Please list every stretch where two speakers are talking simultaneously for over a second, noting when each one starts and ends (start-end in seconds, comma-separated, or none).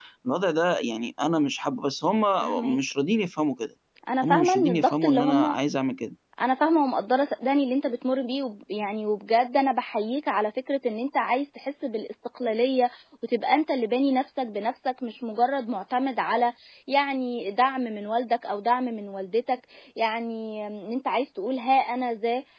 4.2-5.6